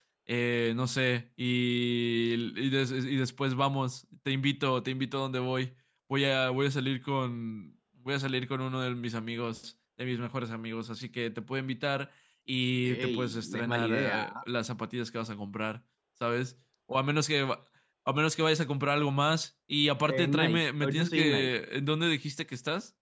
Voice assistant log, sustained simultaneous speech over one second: present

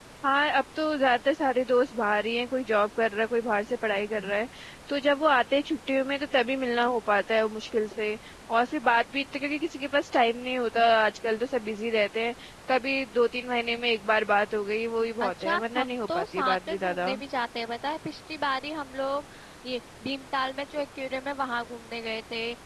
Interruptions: present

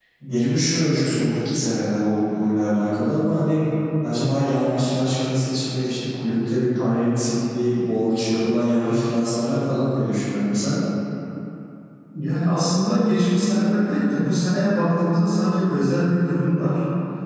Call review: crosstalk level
none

